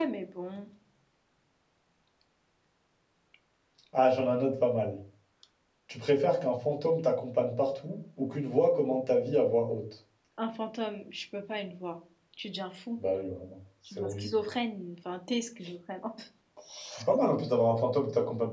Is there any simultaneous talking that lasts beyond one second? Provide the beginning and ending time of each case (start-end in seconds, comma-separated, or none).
none